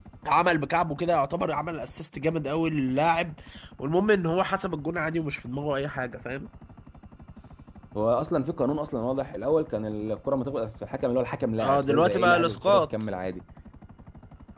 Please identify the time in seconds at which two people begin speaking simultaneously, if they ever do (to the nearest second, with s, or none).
12 s